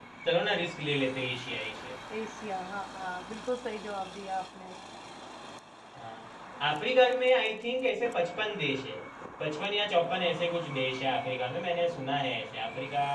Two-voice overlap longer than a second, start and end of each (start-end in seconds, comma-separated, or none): none